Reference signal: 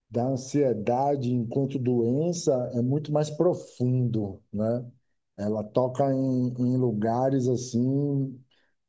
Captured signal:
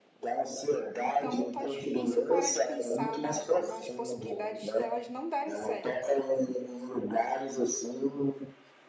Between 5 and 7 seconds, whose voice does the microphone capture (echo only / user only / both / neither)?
both